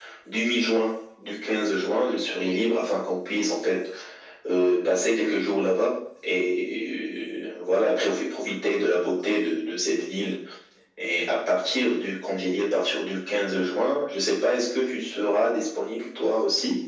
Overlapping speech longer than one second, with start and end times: none

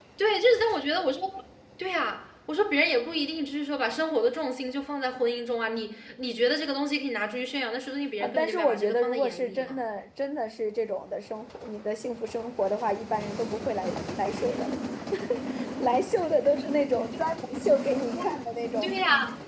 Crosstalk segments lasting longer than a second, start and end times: 8.2-9.8

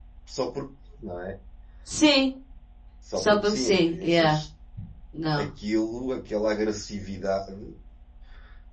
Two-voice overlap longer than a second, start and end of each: 3.1-4.4

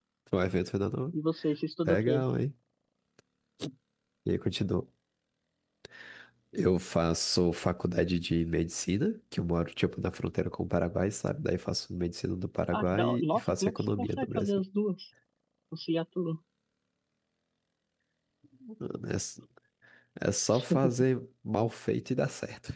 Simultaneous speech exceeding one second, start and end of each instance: 12.7-14.5

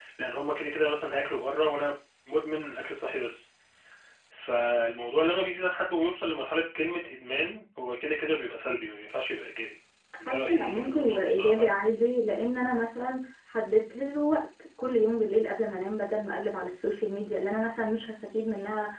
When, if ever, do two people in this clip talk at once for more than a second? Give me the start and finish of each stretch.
10.3-11.7

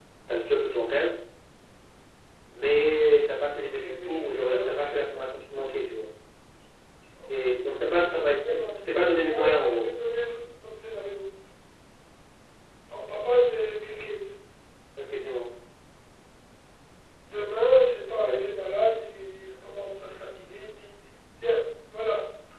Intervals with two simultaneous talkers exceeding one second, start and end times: 3.6-5.2, 7.8-9.9

